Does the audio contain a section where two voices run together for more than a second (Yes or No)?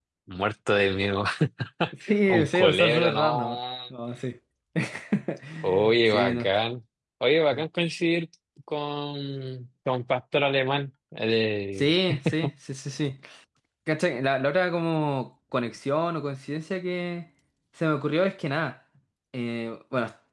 Yes